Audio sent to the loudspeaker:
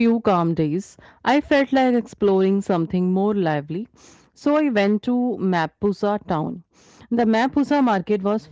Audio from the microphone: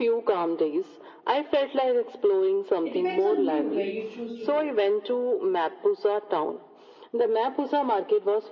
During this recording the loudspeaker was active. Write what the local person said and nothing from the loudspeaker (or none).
It depends on you where you choose to go.